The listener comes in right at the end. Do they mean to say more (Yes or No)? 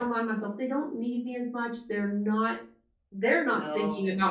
No